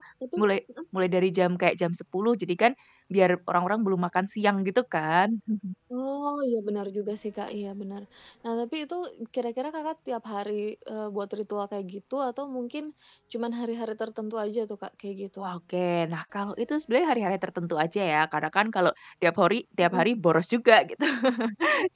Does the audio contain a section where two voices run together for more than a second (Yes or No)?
No